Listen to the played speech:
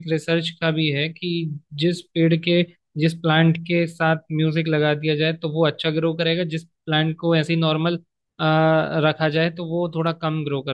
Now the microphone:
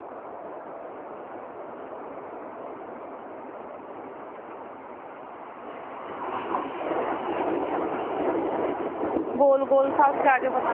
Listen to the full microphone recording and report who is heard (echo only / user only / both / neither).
user only